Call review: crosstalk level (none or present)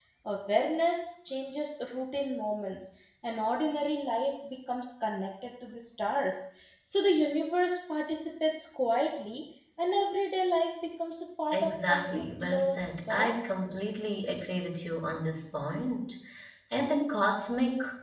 present